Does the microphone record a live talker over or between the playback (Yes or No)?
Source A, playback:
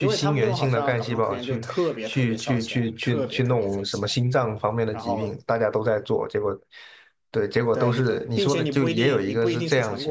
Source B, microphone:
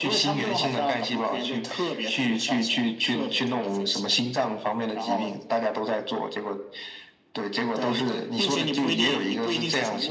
No